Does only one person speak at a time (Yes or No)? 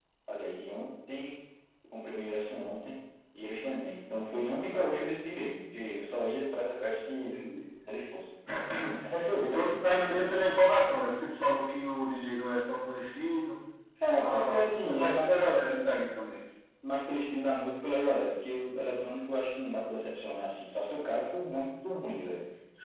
No